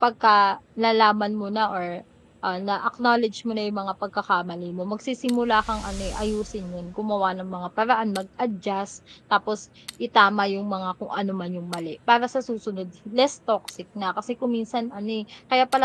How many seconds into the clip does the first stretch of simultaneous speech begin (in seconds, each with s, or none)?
none